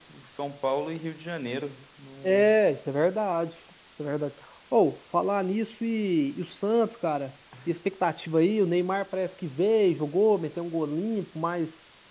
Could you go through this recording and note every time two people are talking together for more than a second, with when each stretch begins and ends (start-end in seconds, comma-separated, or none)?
none